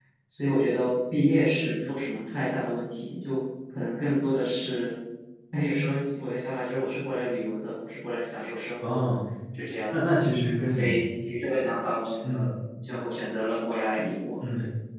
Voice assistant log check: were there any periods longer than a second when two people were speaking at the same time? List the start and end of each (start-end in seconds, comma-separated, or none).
none